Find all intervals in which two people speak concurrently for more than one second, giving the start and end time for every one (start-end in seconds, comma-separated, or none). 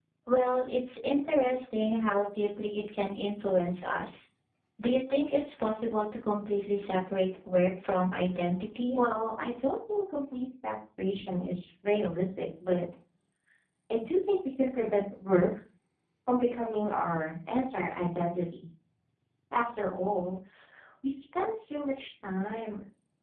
none